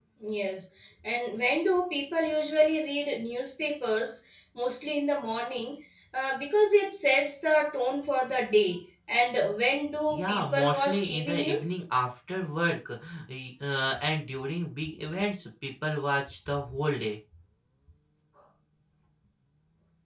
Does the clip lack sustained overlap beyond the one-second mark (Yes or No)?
No